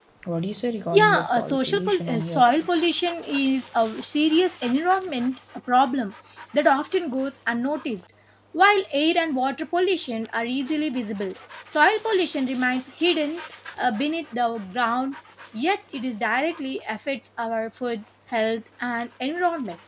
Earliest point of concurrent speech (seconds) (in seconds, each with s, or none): 0.9 s